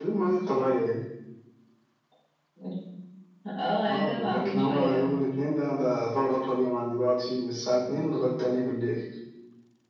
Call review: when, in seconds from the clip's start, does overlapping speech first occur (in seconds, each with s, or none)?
3.8 s